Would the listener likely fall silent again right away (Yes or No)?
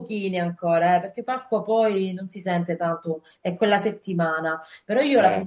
Yes